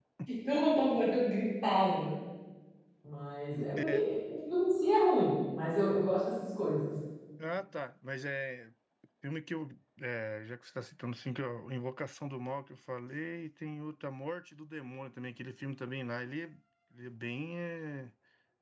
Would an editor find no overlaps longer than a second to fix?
Yes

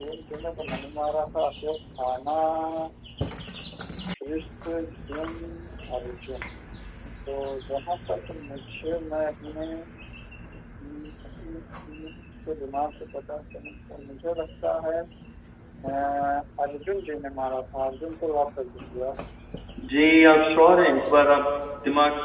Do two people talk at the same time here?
No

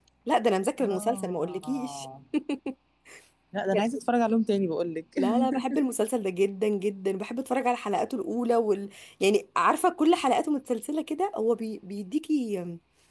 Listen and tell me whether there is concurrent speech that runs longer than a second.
Yes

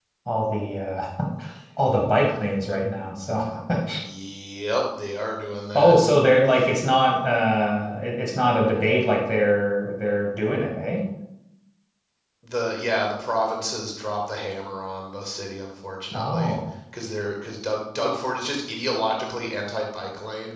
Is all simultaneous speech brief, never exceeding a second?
Yes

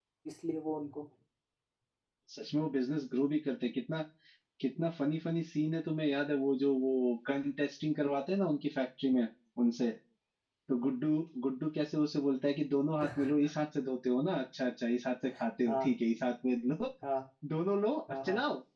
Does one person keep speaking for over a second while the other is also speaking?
No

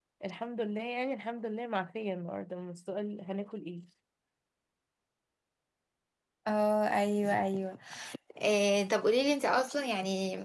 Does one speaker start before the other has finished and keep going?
No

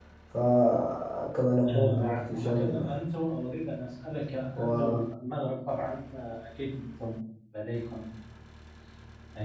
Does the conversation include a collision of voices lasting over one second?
Yes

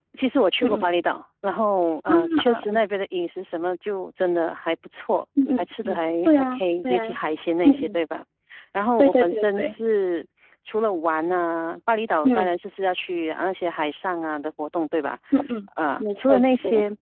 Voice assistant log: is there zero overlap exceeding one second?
No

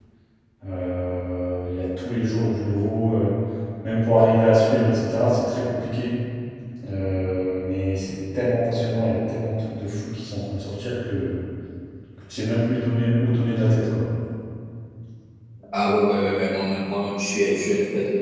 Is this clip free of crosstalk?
Yes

